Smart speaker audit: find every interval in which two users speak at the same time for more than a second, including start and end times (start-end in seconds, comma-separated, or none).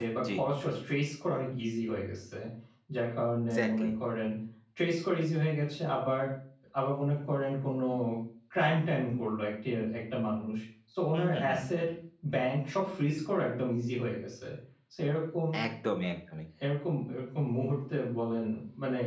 none